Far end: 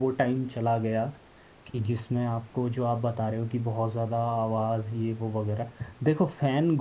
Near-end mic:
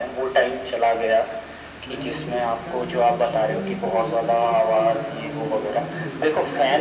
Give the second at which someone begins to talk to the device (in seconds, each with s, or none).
1.9 s